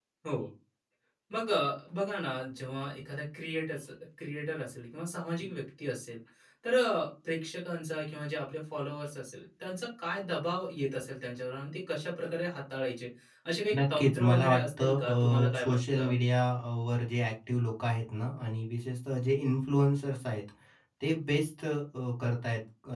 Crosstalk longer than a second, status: present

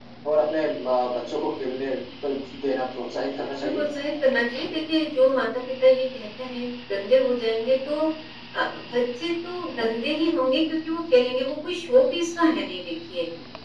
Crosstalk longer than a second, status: none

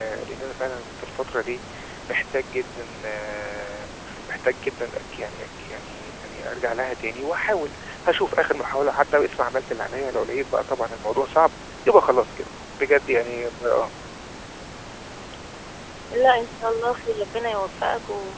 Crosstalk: none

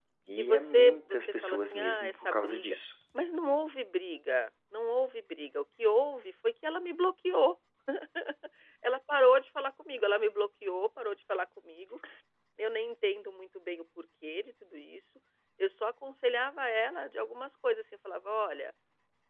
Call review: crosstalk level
present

